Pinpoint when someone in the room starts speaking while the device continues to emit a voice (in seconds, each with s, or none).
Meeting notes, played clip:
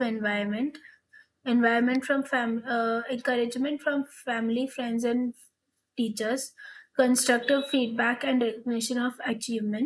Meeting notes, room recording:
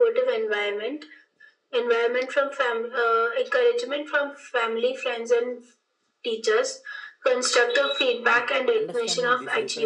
8.3 s